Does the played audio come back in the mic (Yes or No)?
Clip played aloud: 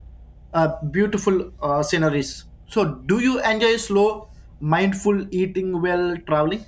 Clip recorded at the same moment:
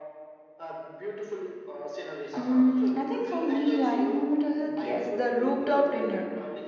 Yes